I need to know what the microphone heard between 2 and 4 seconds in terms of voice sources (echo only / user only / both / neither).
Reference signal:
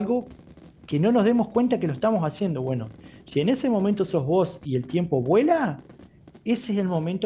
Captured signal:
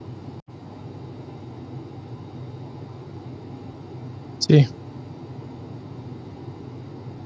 neither